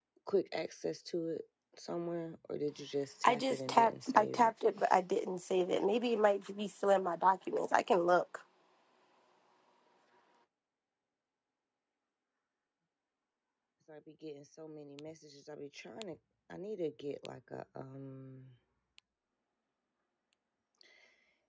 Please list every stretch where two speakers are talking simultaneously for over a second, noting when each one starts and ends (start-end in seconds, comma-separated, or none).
3.2-4.5